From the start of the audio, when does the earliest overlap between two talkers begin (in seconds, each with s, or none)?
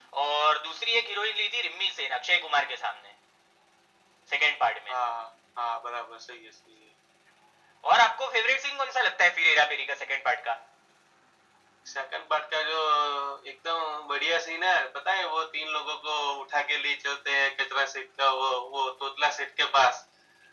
none